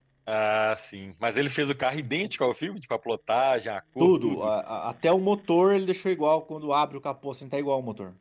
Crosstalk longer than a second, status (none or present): none